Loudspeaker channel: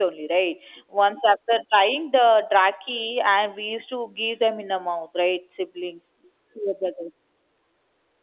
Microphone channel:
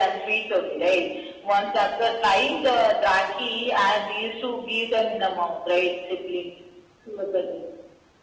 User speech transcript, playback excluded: none

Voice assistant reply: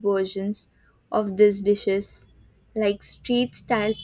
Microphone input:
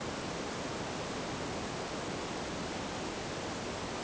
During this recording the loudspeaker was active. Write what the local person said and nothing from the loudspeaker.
none

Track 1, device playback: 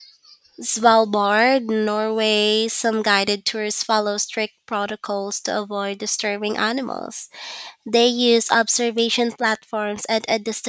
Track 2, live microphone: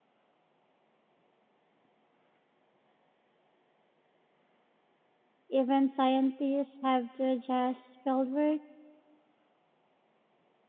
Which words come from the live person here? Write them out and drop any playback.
Even scientists have to adjust fieldwork

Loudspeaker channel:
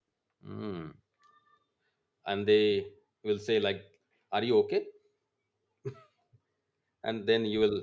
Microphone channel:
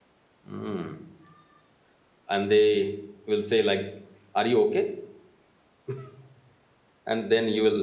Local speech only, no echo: none

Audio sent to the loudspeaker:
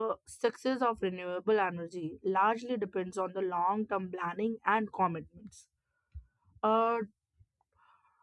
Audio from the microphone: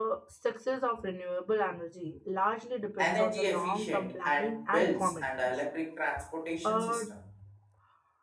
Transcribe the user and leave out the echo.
energy efficient and bells and electric transportation system

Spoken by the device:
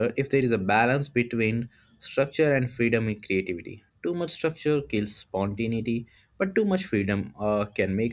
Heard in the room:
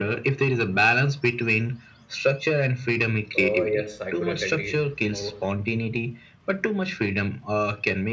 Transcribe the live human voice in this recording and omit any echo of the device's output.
Oh, yes, I couldn't agree more.

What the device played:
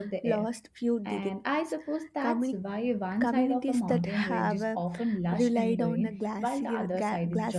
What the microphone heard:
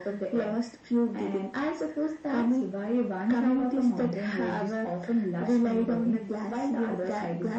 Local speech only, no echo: none

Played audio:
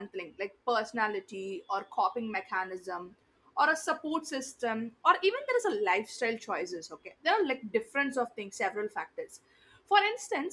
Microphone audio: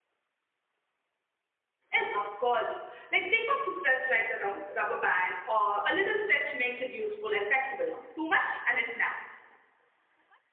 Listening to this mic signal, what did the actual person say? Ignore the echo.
Yes, of course. Like think of the stress like a rum- rubber band or a little stretch makes it useful and flexible, no? Too much and it naps.

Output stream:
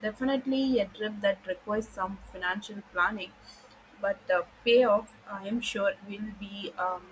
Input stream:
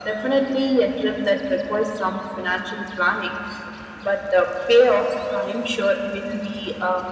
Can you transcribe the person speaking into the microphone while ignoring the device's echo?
none

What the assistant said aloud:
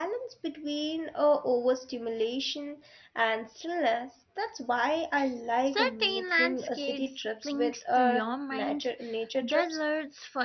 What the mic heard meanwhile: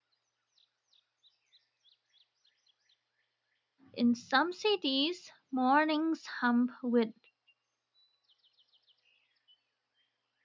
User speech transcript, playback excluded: in some cities, mornings hum with

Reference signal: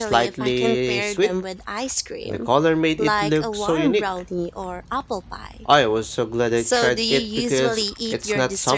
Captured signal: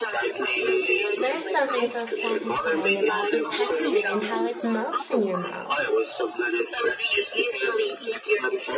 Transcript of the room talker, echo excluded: There's something so satisfying about the texture and how it melts in your mouth.

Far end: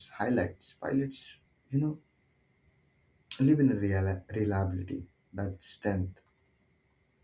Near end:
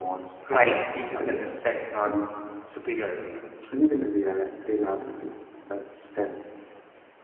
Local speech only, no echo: Flying teaches them respect, not superiority.

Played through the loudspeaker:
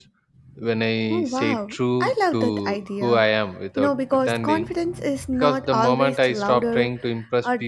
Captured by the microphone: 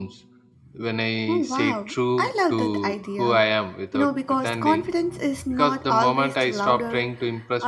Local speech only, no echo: none

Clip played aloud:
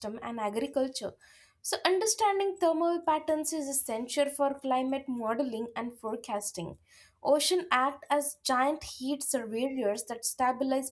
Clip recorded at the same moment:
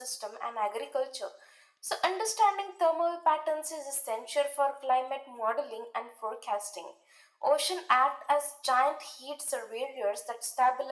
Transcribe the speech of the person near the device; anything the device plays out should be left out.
none

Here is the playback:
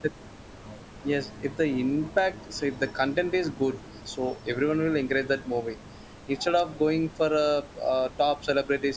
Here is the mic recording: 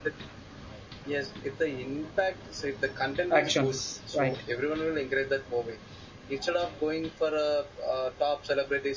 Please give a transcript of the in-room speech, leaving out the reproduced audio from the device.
actions right

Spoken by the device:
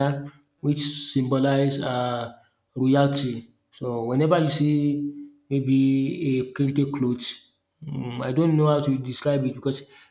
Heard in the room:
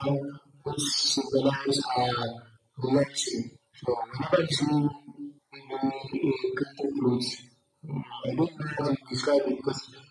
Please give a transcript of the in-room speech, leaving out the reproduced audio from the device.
none

